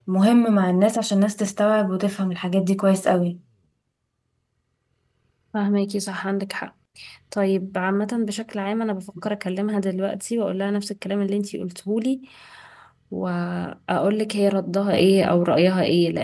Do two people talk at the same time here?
No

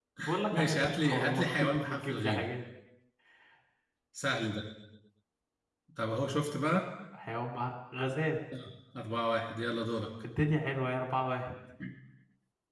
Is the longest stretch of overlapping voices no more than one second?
No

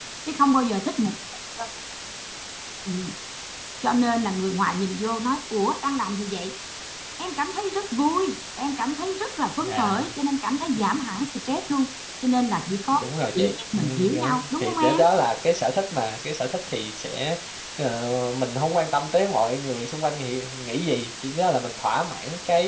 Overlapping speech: Yes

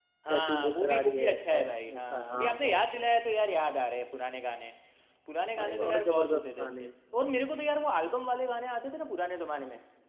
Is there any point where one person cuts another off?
Yes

